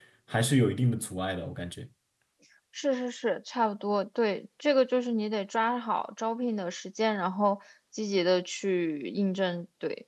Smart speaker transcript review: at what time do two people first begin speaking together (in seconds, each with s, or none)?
none